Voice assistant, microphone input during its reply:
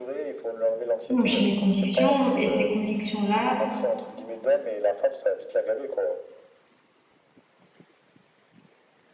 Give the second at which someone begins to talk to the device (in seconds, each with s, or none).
1.1 s